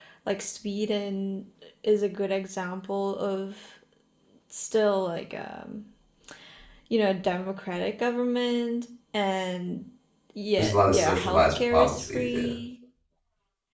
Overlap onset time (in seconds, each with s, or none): 10.6 s